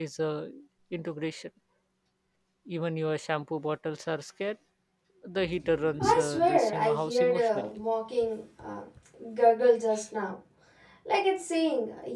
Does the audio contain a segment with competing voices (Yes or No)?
Yes